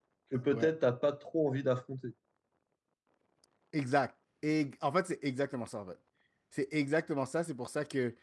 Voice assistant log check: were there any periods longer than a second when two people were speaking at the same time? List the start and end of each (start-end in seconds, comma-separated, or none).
none